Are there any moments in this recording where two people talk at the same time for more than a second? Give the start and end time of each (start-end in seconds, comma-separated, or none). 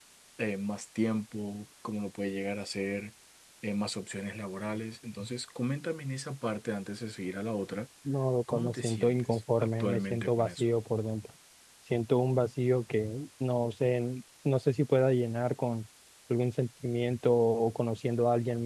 8.5-10.6